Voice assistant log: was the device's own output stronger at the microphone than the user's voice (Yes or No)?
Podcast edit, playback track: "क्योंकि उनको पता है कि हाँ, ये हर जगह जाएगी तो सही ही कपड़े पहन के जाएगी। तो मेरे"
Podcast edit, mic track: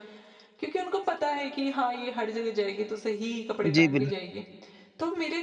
No